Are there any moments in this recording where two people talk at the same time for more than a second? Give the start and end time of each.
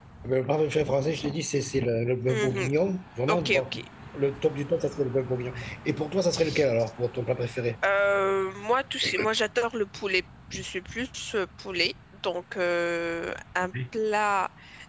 none

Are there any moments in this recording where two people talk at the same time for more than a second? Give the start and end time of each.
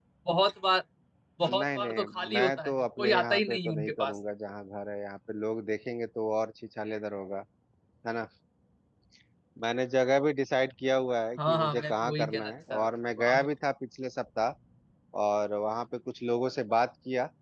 1.5-4.2, 11.4-13.5

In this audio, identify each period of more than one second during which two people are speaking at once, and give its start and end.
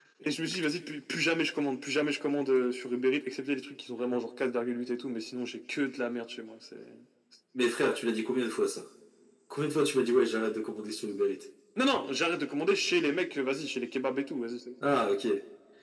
none

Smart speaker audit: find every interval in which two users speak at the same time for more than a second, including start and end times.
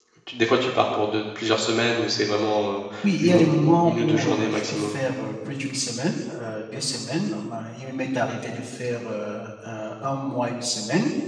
3.2-4.9

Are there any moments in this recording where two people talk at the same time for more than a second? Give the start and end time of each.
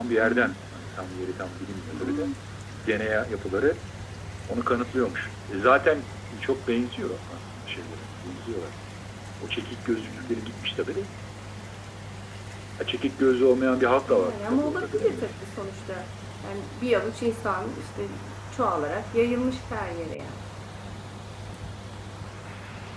14.1-15.3

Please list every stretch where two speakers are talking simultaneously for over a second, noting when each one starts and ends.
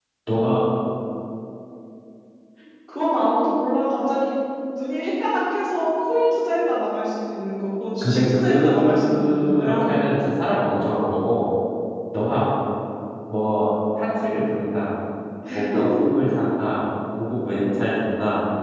8.0-9.9

